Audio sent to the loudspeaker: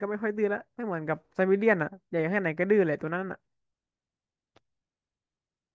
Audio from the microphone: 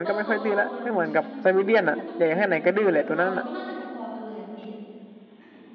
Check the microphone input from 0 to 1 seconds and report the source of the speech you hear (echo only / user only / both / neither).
both